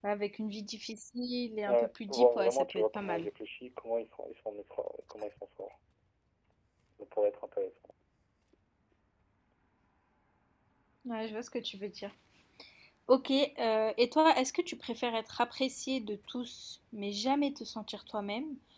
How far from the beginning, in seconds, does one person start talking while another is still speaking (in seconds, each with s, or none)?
1.7 s